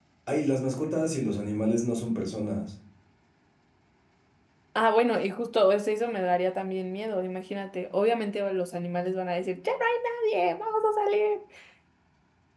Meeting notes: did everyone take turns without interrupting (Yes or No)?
Yes